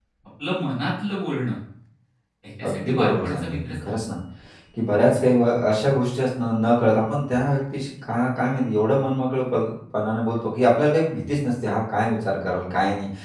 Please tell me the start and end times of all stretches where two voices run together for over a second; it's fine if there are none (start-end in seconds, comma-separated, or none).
2.7-3.9